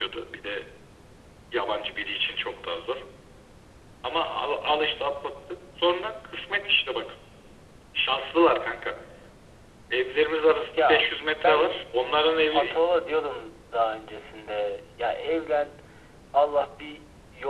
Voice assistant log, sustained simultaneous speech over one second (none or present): none